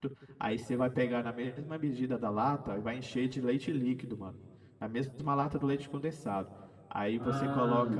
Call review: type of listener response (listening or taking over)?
listening